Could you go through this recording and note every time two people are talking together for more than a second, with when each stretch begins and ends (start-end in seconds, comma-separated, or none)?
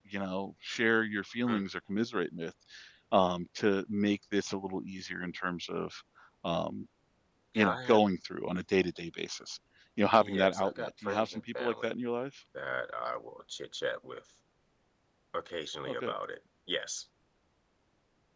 10.2-11.9